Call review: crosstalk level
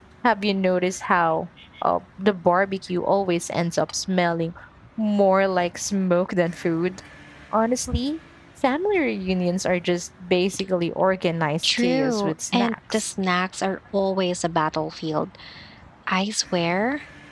present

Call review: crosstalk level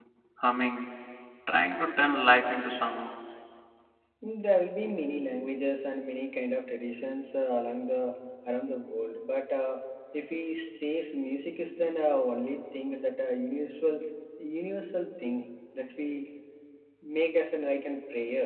none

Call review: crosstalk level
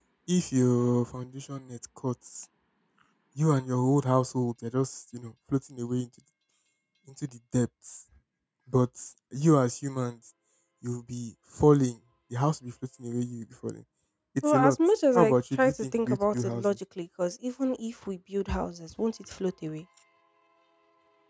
present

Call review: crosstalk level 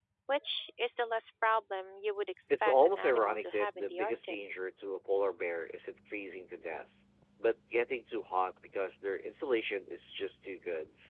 present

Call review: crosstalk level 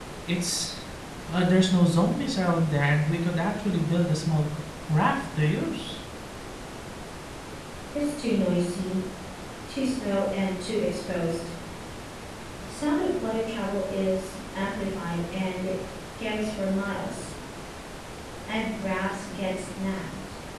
none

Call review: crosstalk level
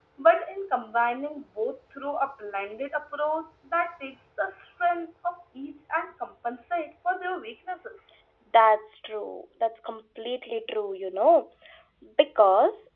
none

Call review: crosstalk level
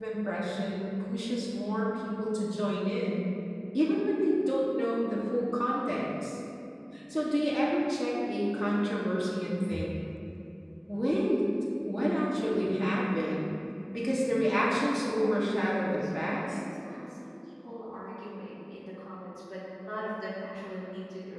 present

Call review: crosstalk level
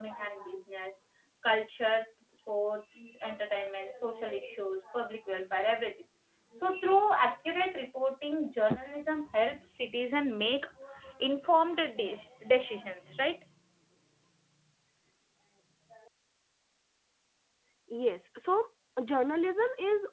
none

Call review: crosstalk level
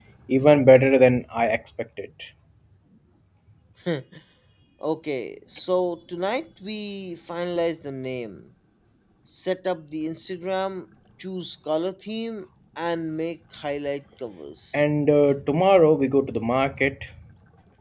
none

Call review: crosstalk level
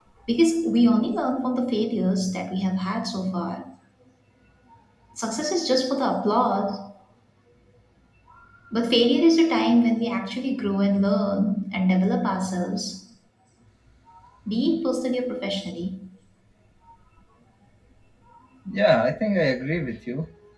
none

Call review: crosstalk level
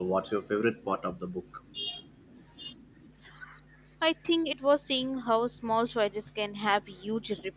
none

